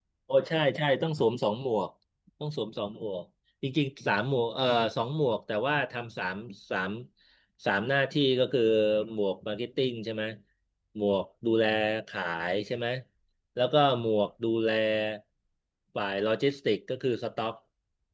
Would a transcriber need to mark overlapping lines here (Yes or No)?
No